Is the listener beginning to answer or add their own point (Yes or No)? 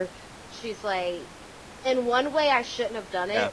No